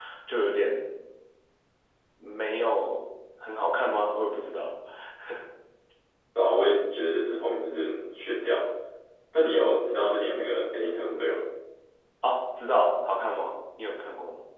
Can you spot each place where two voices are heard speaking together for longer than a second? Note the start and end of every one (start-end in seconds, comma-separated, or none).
none